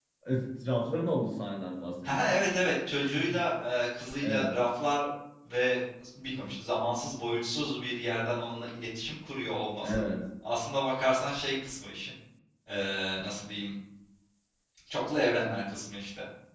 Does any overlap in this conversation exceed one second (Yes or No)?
No